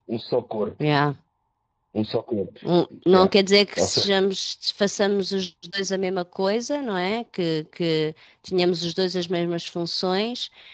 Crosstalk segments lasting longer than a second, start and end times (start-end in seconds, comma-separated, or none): none